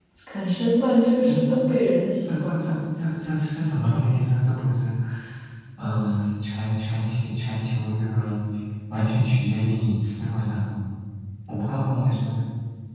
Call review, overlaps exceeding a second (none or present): none